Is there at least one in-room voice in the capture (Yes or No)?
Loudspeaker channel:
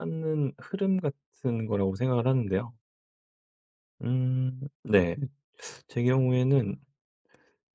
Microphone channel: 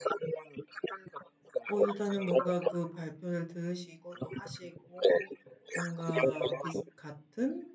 Yes